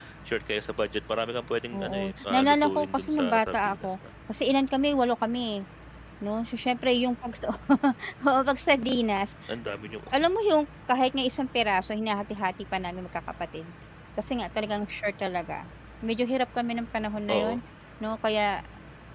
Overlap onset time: 2 s

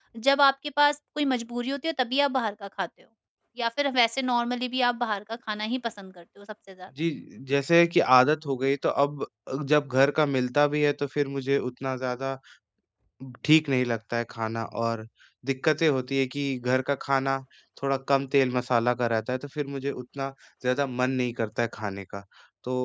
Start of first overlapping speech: none

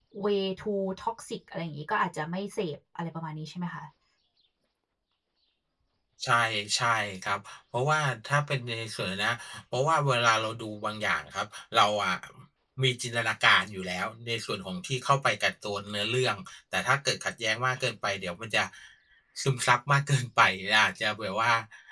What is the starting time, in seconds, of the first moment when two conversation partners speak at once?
none

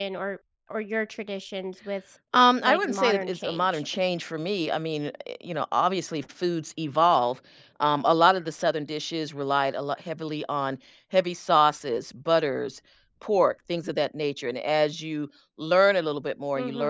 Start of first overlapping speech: 3 s

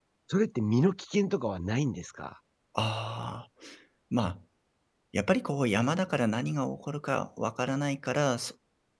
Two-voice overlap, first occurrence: none

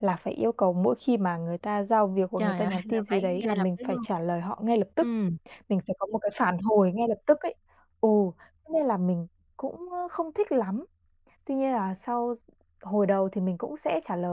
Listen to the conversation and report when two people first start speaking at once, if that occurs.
2 s

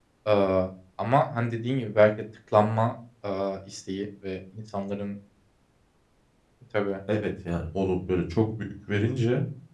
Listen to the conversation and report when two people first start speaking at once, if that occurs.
none

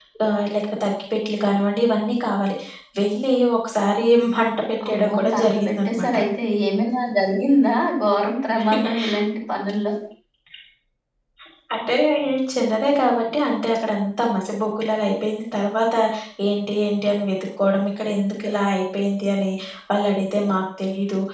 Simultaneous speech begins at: 5 s

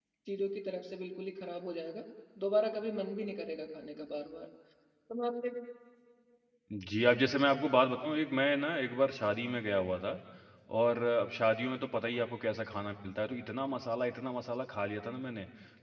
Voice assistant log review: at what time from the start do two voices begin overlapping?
none

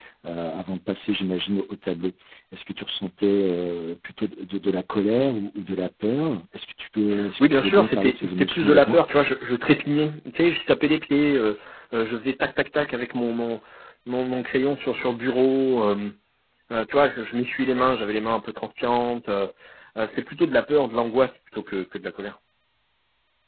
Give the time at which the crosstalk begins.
7 s

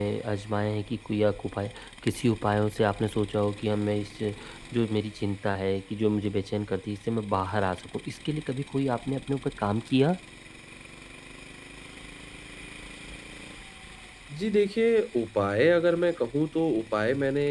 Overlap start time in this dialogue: none

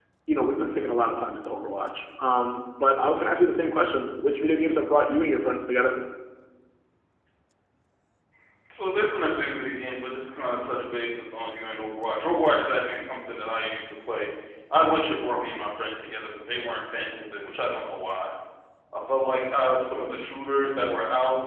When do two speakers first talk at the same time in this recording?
none

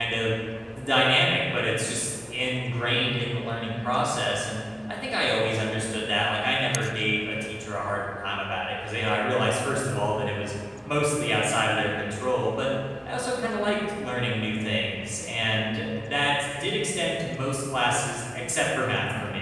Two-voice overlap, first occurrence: none

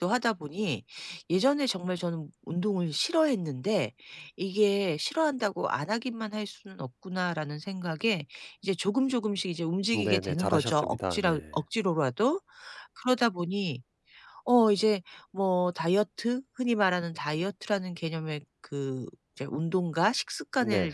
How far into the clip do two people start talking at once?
10 s

